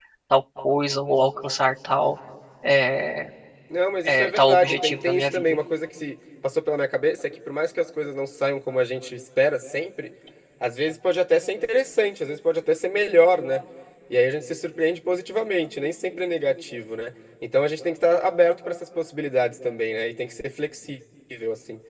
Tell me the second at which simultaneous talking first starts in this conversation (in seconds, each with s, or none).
4.0 s